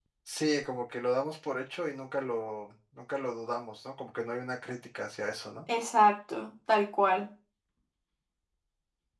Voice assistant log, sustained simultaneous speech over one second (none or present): none